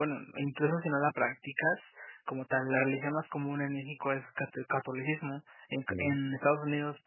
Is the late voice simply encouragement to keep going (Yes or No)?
Yes